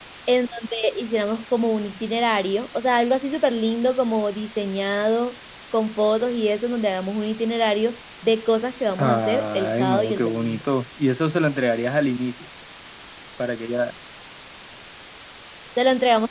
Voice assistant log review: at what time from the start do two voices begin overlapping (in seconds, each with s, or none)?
9.0 s